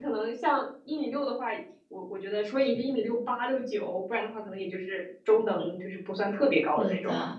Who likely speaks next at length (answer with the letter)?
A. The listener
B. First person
A